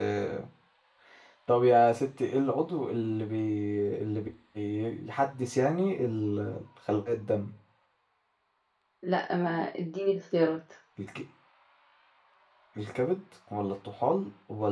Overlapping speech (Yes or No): No